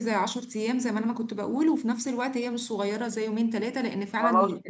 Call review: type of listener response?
taking over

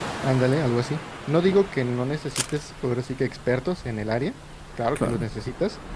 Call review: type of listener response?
listening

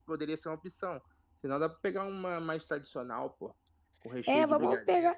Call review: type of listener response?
taking over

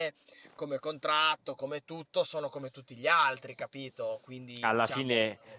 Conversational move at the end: taking over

